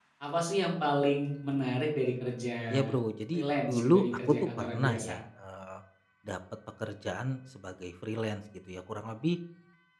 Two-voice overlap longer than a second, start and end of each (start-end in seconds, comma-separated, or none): 3.3-5.2